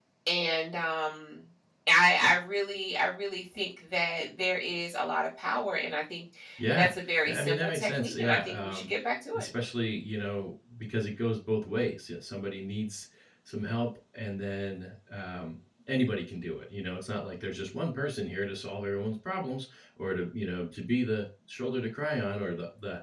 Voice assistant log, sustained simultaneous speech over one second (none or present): present